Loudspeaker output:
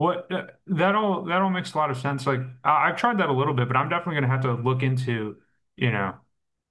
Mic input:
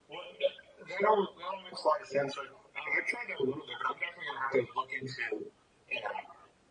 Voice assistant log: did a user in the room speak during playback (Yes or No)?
No